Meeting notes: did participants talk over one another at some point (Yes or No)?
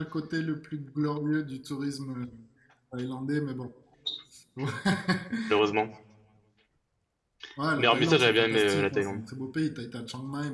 Yes